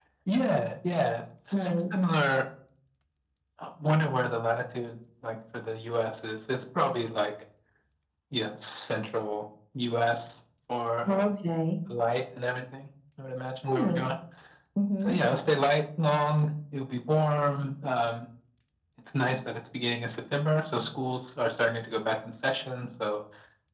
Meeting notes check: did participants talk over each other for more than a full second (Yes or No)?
No